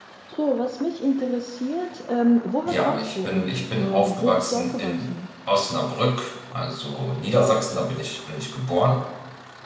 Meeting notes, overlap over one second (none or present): present